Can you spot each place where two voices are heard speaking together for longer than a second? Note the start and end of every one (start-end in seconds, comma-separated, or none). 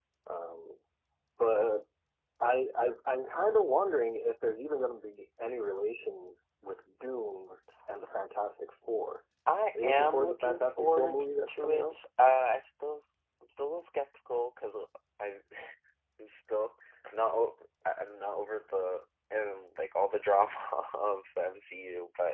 9.8-11.9